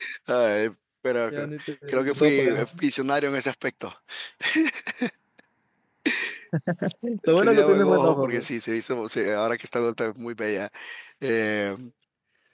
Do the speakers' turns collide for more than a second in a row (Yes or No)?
Yes